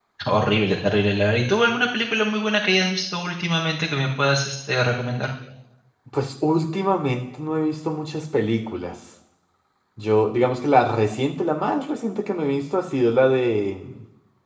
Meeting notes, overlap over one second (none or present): none